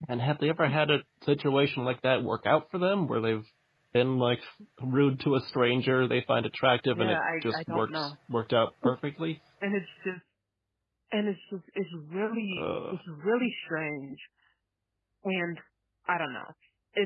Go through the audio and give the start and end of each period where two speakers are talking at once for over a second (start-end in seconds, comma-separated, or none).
6.9-8.1